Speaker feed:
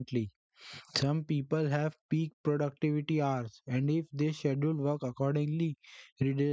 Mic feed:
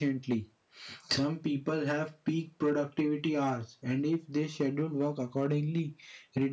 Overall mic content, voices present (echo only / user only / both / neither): echo only